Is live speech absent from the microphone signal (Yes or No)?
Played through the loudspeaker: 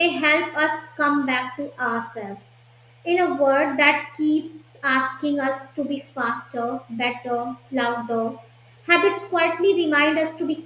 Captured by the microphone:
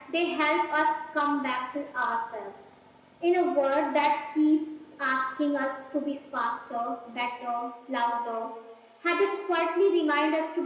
Yes